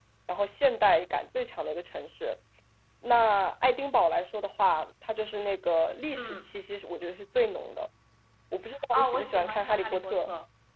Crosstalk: present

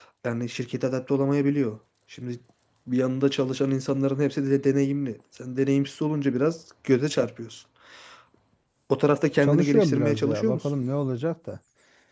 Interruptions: present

